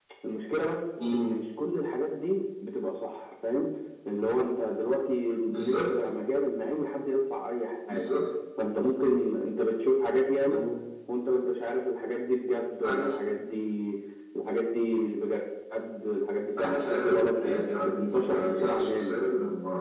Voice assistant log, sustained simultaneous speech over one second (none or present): present